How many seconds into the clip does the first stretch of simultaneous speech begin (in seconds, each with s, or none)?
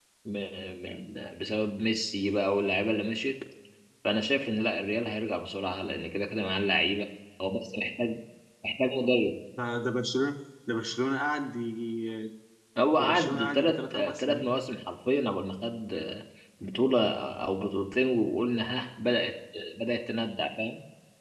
13.0 s